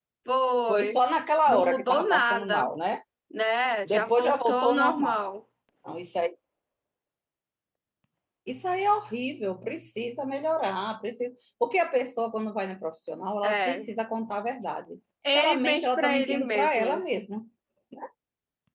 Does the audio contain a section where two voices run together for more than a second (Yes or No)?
Yes